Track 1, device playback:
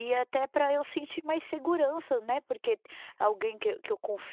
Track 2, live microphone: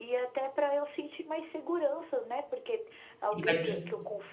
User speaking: Yes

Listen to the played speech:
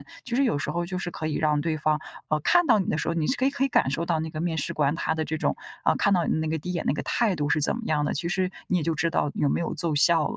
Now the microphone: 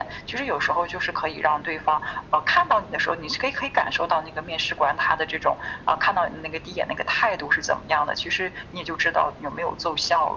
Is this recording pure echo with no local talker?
Yes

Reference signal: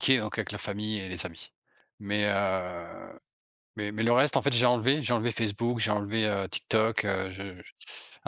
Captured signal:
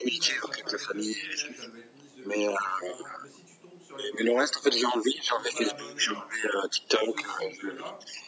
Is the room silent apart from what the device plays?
No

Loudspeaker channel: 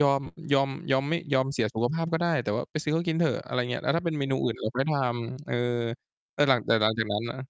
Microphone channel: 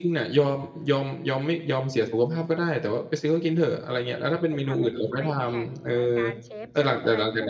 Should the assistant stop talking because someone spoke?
Yes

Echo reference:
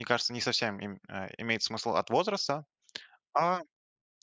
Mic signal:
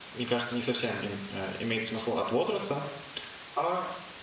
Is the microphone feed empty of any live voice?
Yes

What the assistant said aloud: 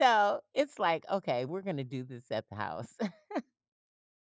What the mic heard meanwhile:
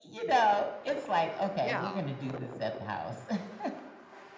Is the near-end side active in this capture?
Yes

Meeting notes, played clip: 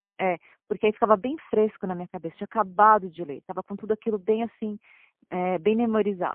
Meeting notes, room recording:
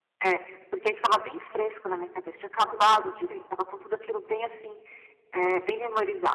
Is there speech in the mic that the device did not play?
Yes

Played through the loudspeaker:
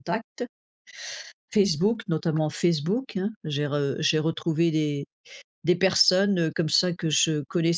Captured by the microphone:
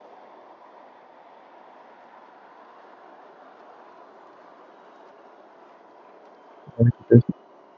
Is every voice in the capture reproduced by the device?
No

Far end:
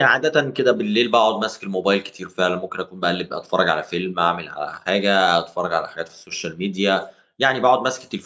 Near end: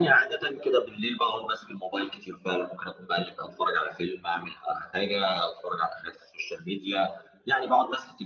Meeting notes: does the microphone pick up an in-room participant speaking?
No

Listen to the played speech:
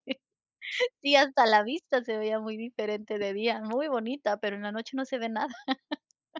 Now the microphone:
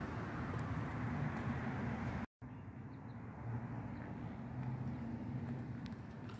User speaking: No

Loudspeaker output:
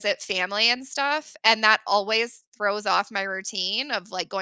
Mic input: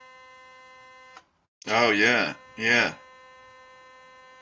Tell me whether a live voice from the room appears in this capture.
Yes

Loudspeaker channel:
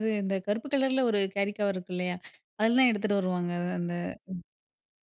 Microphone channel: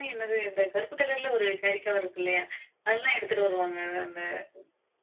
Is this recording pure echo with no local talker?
Yes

